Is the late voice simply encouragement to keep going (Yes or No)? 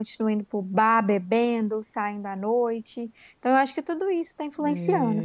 No